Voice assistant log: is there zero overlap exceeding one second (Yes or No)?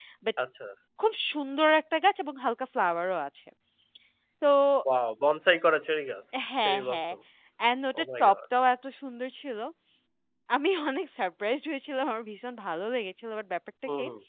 Yes